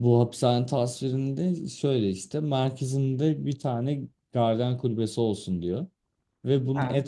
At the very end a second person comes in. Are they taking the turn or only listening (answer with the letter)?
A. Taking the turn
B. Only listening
B